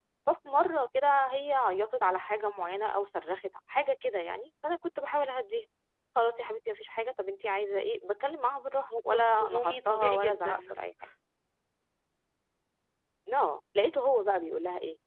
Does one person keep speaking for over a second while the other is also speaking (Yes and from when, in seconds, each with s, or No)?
Yes, from 8.9 s